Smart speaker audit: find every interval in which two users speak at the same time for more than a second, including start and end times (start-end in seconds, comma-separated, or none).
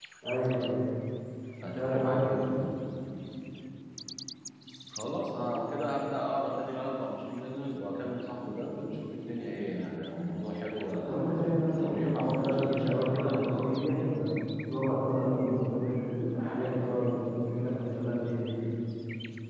11.8-13.8